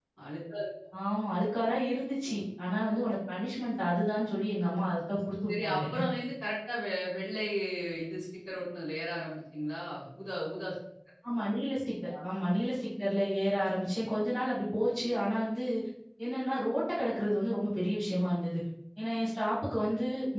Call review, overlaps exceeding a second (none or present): none